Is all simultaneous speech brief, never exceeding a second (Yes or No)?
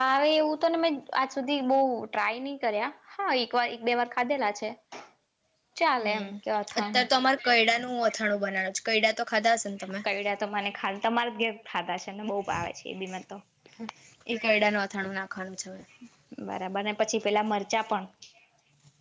Yes